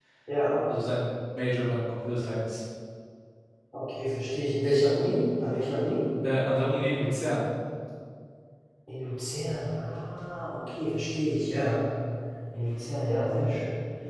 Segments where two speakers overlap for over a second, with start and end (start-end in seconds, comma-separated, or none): none